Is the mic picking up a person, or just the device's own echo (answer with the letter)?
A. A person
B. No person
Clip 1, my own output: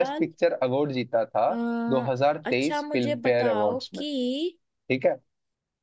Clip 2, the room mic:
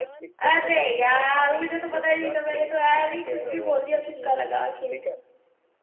A